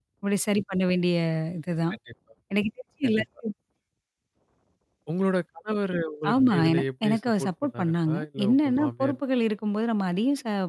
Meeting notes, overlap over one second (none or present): present